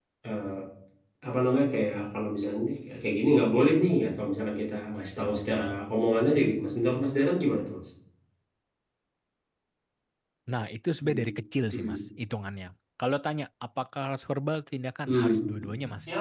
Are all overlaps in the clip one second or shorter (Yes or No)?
Yes